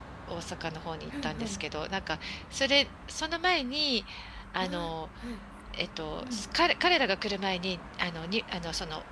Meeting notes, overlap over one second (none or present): none